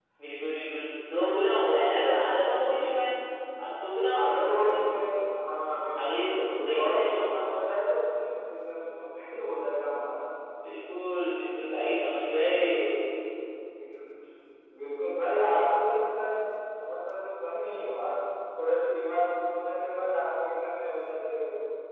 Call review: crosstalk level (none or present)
present